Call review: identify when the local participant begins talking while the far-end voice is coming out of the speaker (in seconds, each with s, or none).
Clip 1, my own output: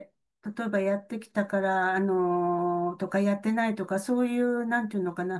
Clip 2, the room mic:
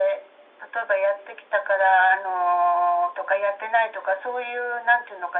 none